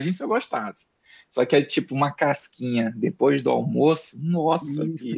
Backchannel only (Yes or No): No